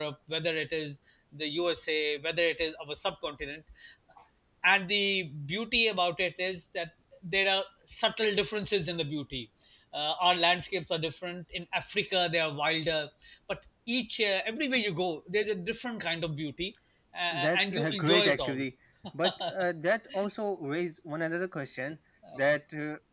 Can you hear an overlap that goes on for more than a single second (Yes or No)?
Yes